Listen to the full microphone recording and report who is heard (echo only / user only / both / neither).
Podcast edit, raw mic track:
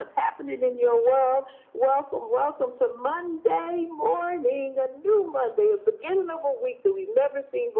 echo only